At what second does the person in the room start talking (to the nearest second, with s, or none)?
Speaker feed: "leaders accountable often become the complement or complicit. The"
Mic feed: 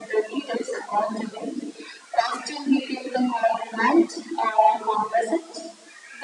none